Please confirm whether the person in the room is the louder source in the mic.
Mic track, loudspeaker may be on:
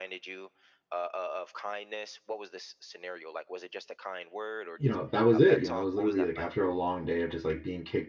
Yes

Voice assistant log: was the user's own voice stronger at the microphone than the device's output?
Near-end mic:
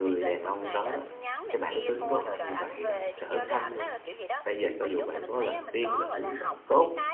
Yes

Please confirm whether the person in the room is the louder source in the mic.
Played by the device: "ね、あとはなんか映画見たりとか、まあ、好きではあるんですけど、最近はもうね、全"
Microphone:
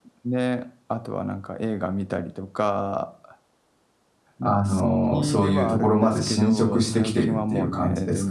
Yes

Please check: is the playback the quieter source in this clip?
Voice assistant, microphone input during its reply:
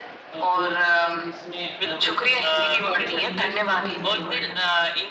No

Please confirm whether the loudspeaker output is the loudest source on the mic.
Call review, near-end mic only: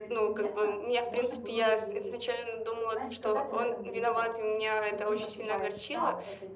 Yes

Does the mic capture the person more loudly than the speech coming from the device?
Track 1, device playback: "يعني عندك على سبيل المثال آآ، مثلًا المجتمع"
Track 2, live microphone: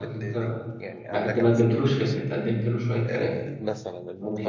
Yes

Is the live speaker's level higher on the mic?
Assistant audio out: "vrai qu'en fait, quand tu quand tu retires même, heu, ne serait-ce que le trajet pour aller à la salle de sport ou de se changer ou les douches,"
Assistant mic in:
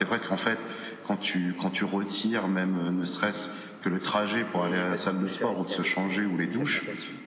No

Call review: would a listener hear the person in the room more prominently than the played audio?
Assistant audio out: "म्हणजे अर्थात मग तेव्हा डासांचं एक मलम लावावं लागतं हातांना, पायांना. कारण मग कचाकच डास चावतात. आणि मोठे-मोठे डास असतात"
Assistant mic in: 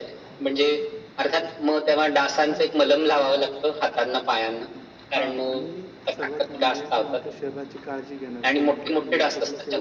No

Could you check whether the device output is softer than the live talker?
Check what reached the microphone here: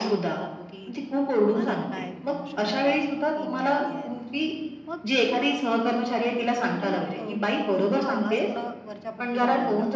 No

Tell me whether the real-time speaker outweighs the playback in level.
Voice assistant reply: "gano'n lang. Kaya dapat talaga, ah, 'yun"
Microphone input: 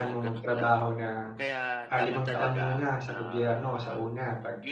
Yes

